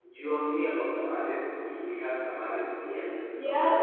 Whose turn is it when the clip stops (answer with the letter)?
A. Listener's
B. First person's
A